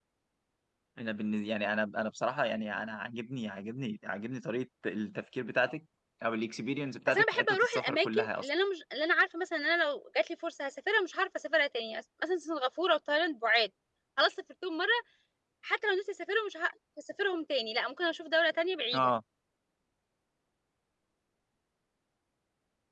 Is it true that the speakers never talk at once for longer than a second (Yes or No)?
No